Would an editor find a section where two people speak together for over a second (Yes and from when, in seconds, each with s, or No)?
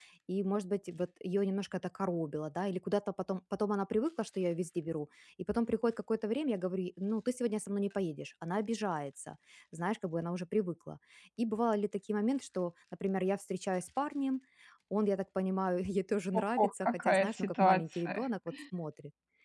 Yes, from 16.3 s